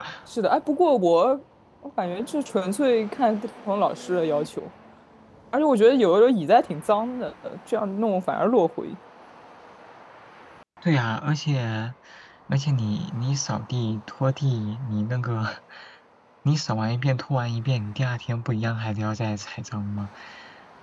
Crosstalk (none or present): none